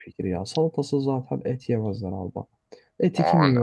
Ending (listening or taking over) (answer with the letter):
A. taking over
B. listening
B